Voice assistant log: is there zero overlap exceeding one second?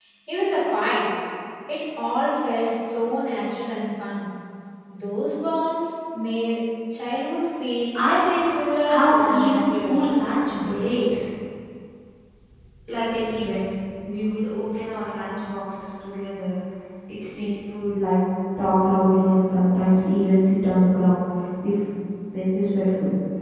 No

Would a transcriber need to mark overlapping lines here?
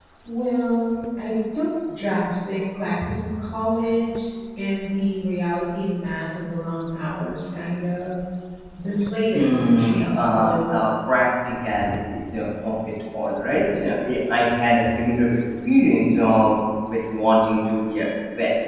Yes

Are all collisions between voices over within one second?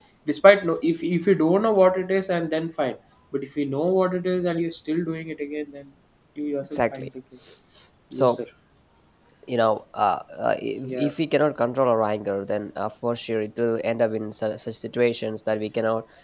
Yes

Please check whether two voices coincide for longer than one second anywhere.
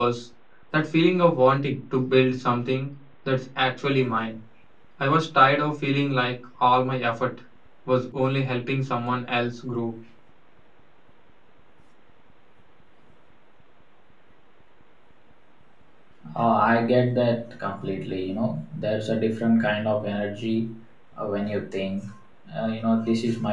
No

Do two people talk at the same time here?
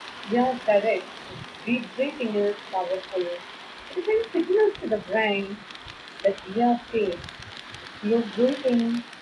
No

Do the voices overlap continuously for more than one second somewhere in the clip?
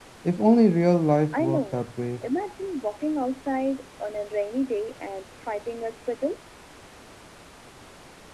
No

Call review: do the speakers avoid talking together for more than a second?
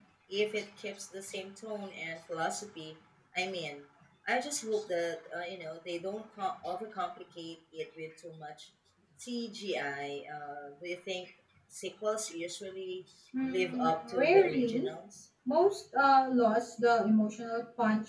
No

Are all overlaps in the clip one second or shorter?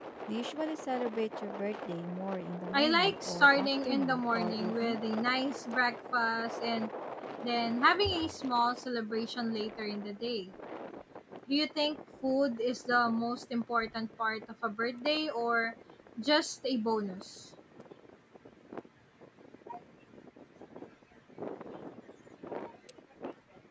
No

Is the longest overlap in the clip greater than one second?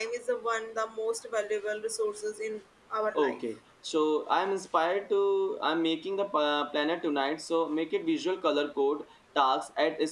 No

